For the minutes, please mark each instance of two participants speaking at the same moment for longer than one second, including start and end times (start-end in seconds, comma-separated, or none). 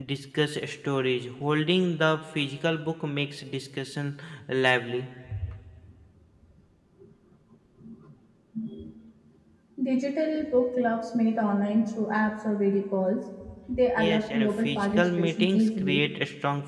14.0-16.0